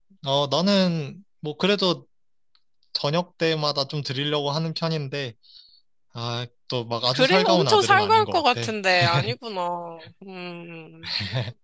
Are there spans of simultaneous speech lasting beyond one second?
Yes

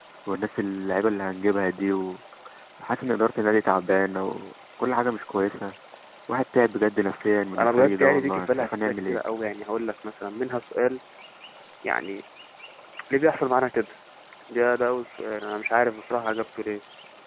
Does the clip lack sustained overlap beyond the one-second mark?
No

